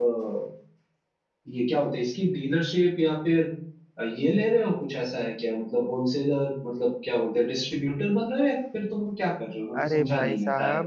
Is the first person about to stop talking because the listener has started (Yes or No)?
Yes